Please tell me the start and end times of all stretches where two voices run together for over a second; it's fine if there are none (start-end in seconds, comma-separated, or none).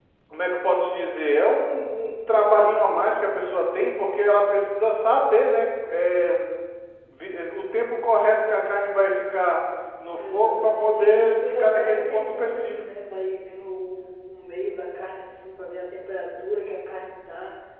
10.1-12.7